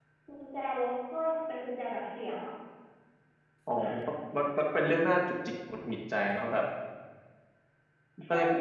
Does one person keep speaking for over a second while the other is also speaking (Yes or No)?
No